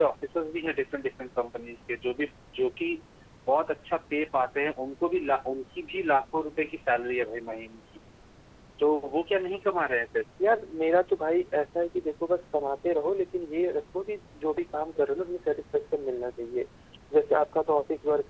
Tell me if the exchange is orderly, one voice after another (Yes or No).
Yes